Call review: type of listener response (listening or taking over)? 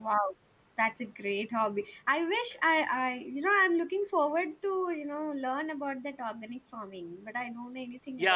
taking over